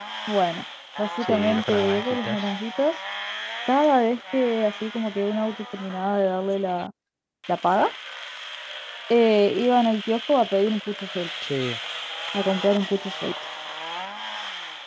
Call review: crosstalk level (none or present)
present